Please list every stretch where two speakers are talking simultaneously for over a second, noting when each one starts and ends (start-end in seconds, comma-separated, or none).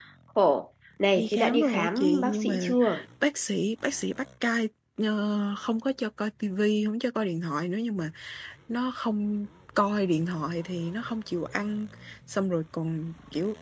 1.2-2.7